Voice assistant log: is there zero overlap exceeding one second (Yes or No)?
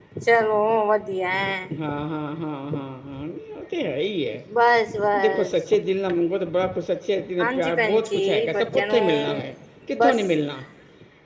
No